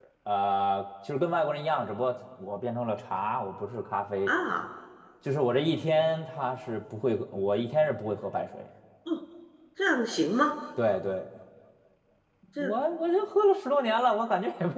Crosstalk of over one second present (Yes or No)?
No